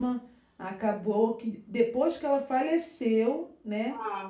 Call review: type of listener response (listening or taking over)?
listening